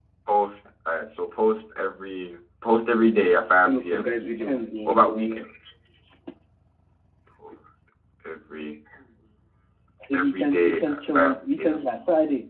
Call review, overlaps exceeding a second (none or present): present